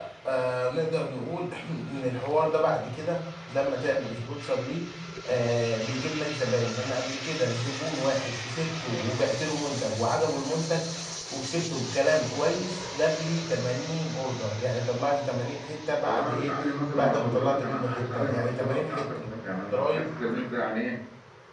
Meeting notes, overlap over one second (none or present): present